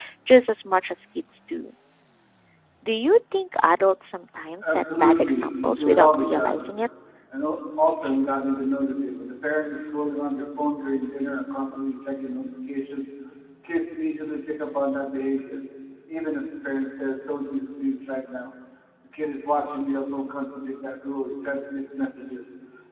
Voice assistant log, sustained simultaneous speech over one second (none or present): present